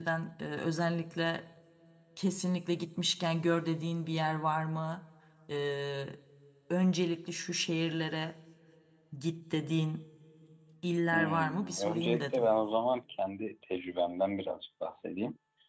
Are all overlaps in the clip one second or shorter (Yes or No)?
No